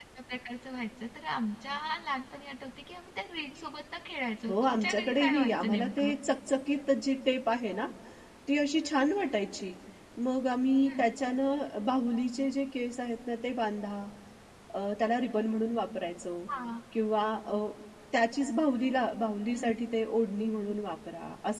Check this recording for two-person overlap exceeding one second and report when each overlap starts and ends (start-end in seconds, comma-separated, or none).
4.5-6.1